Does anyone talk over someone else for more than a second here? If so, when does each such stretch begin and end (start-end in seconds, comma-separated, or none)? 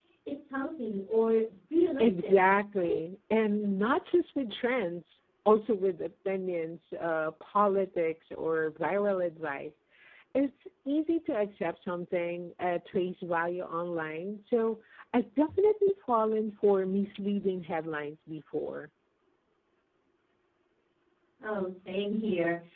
none